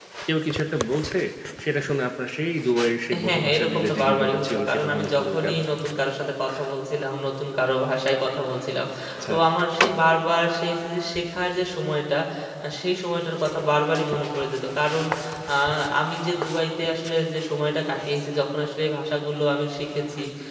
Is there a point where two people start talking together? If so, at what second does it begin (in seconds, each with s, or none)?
3.1 s